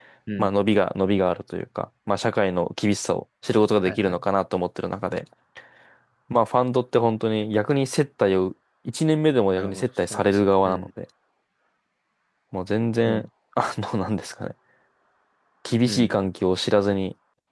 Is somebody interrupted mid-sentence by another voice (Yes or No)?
Yes